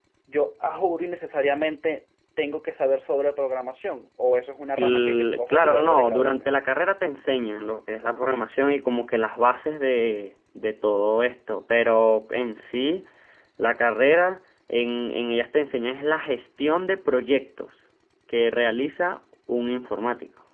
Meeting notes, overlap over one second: present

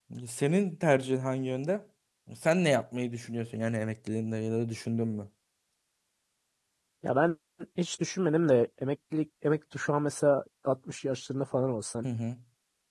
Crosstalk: none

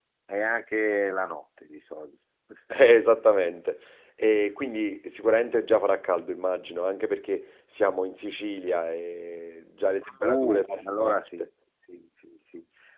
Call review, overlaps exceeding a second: present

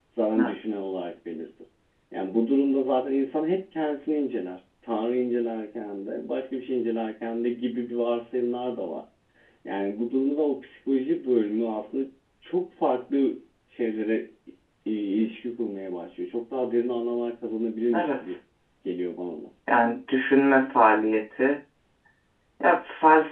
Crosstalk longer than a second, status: none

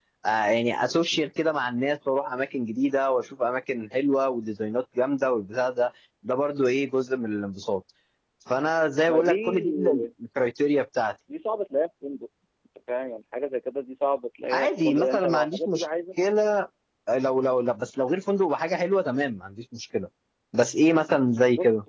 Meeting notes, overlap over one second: present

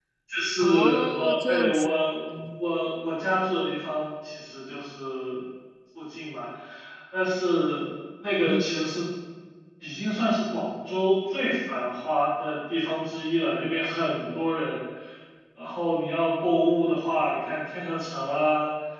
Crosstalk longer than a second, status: present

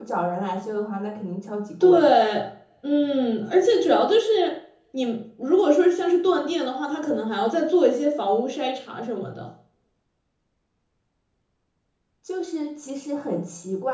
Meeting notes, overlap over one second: none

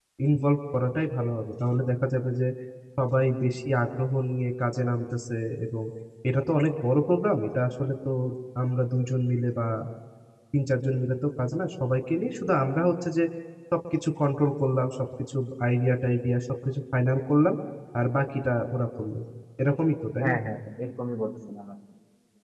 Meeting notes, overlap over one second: none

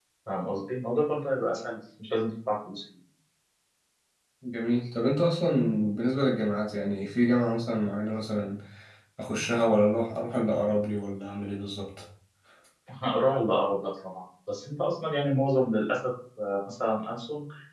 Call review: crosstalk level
none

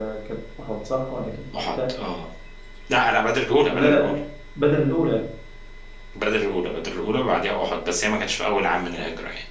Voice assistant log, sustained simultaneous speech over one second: none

